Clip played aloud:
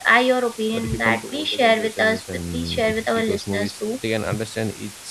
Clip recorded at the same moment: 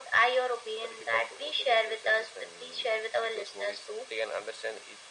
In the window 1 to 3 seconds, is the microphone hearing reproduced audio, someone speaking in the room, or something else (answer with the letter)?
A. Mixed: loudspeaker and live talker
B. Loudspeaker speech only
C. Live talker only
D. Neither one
B